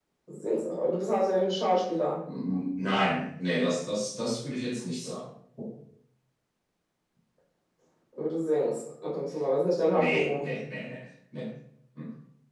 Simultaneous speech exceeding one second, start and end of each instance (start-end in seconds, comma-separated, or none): none